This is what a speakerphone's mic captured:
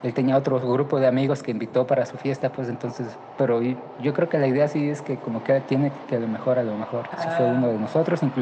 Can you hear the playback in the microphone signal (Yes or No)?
Yes